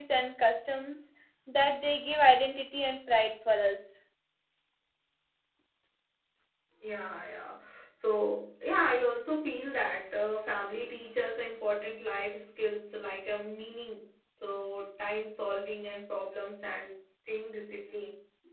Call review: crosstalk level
none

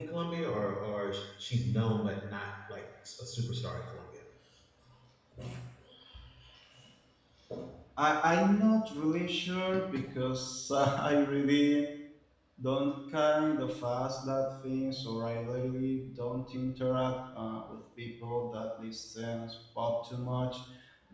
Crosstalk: none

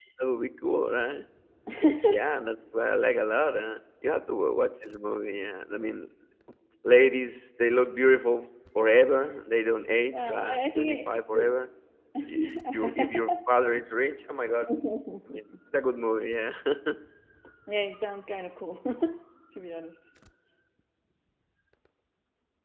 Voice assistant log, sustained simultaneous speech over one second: present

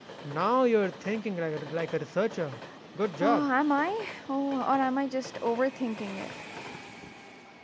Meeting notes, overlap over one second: none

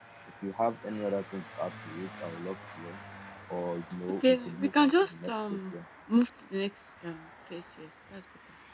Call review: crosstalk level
present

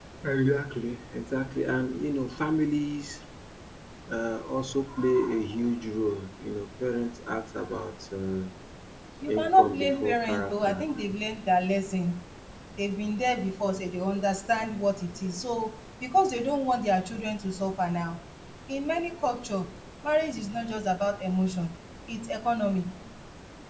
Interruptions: present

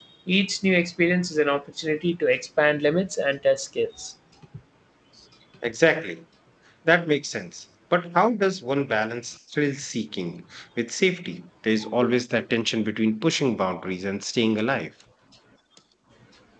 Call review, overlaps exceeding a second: none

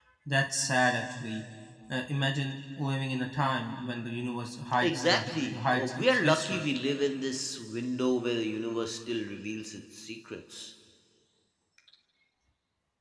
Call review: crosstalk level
present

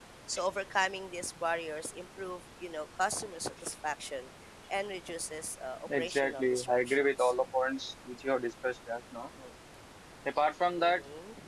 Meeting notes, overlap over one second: present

